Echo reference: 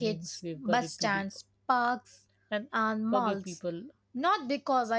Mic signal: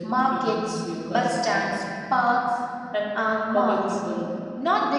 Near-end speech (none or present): none